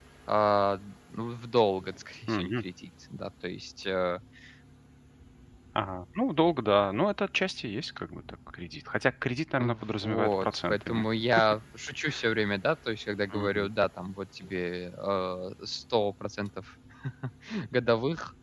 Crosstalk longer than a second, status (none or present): present